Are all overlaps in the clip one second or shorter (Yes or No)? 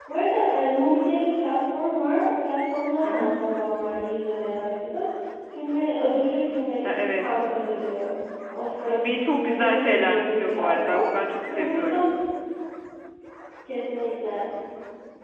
No